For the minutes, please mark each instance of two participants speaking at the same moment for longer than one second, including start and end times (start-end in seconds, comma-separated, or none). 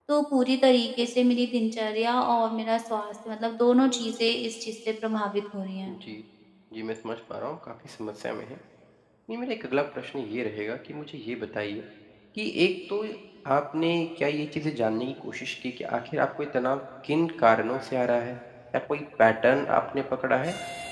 none